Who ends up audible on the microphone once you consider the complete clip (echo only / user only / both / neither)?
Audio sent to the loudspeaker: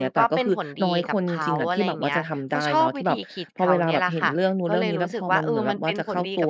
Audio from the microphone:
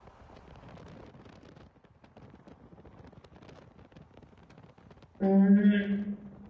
user only